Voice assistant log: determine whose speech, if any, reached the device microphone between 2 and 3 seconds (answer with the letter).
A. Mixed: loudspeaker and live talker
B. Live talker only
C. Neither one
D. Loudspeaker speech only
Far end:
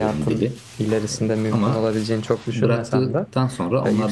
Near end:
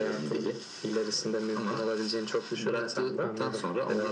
D